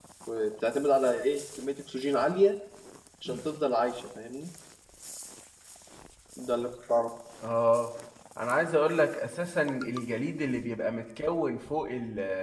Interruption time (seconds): none

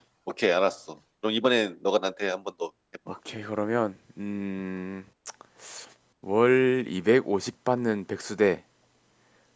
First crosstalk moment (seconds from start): none

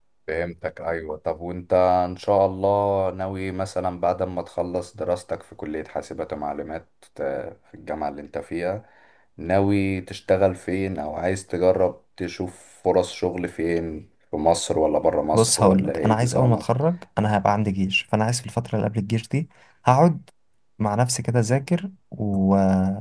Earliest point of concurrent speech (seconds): 15.3 s

